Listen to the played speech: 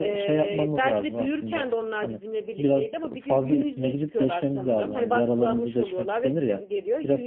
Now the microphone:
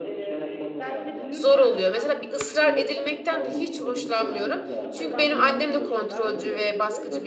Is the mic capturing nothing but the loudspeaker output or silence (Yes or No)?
No